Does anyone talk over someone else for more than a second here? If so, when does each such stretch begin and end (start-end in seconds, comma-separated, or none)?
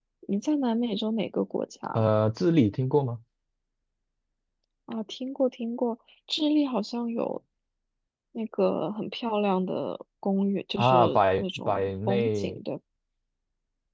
10.8-12.6